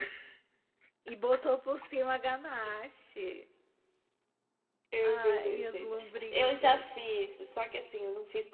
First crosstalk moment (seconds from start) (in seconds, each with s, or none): 5.0 s